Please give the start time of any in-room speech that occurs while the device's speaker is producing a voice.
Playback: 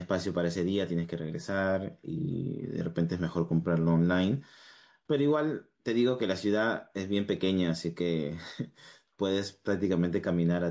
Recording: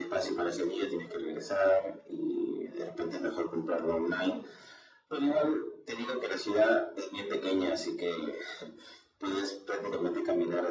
none

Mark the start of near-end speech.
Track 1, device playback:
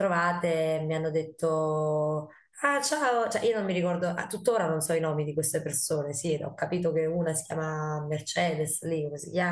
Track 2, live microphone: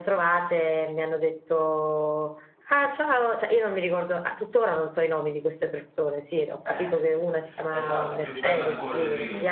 6.6 s

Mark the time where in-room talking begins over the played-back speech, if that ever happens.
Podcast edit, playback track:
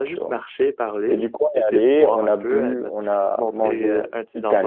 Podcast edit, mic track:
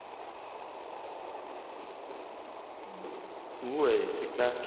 2.8 s

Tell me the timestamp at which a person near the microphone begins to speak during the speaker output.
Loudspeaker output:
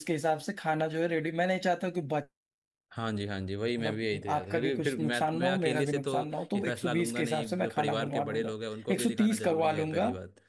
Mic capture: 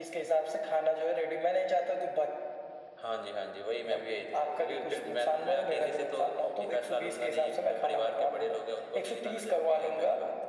none

